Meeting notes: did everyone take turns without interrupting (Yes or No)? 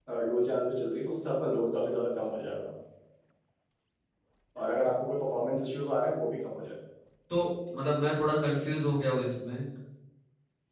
Yes